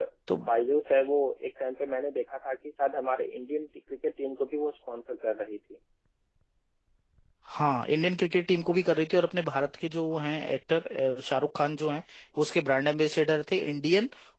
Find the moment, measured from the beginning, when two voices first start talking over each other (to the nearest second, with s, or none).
none